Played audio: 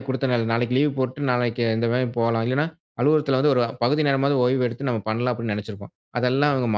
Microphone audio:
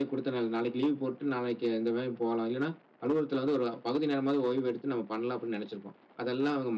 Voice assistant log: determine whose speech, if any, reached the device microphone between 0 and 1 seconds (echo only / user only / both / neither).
echo only